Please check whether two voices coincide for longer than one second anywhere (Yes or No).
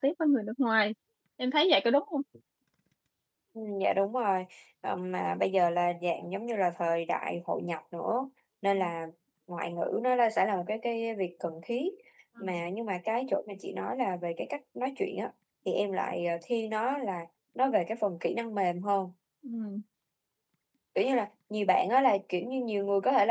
No